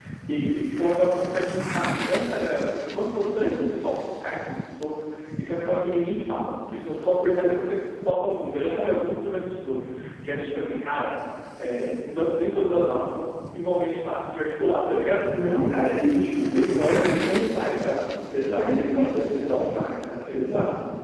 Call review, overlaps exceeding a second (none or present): present